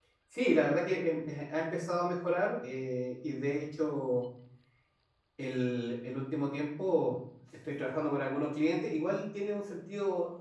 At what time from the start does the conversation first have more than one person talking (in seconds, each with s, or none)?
none